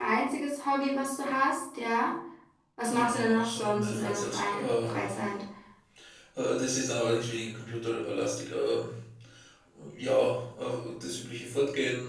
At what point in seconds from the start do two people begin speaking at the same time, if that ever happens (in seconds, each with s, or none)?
2.9 s